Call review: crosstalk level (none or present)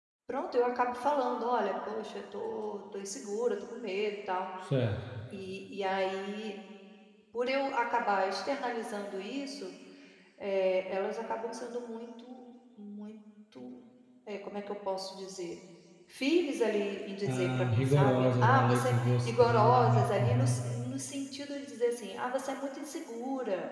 present